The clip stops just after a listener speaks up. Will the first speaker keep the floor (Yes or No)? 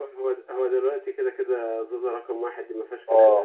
No